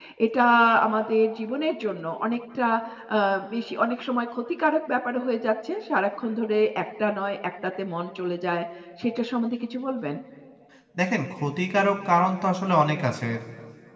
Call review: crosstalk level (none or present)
none